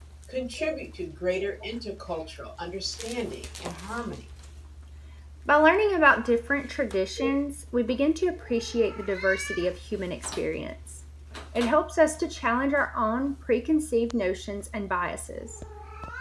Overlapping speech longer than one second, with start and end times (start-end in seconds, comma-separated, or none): none